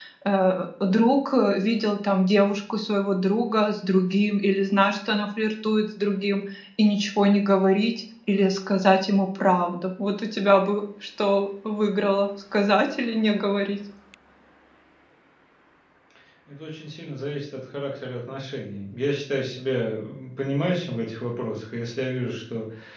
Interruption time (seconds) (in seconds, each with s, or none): none